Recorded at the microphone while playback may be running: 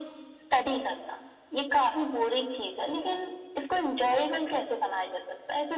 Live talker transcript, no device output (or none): none